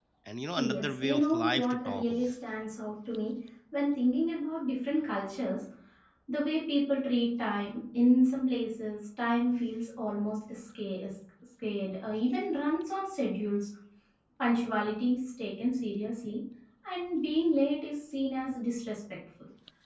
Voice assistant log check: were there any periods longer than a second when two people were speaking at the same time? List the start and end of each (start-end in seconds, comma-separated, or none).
0.6-2.3